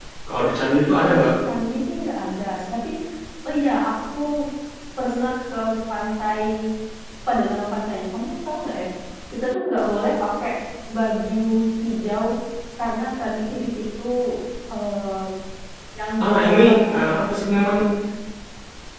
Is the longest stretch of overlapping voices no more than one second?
No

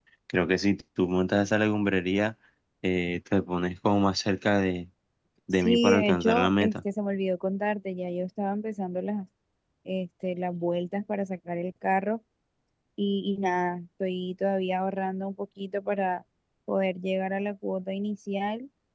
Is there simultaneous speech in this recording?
Yes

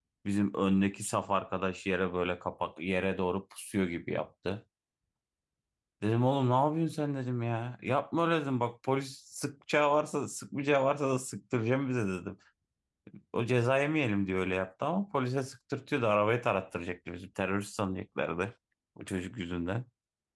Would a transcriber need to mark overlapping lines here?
No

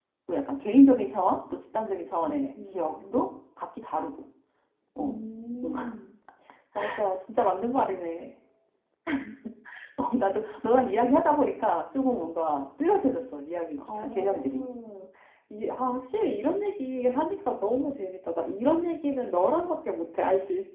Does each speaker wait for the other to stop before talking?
No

